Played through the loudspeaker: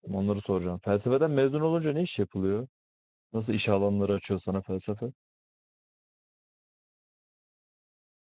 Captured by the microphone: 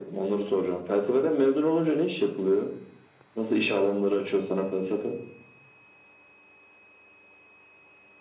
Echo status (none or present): present